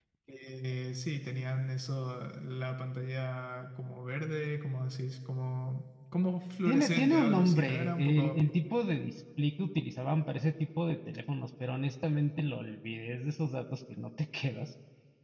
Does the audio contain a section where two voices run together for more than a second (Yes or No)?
Yes